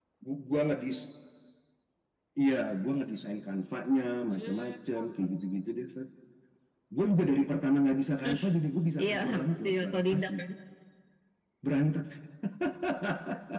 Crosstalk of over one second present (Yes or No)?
Yes